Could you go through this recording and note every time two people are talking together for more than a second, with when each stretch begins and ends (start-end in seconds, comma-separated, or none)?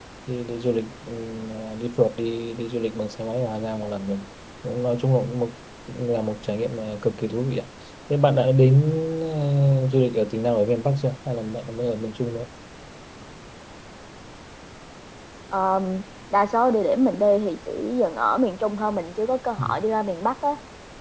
none